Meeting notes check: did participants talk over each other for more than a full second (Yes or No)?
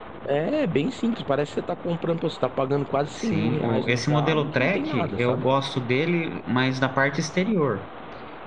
Yes